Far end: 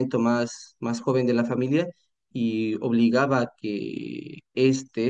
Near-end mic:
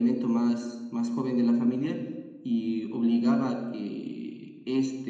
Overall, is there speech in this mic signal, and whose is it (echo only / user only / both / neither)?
echo only